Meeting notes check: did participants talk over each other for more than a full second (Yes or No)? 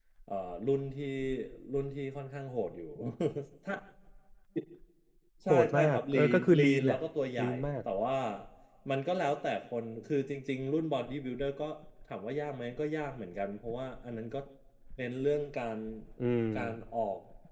Yes